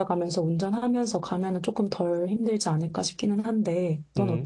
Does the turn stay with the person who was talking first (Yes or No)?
No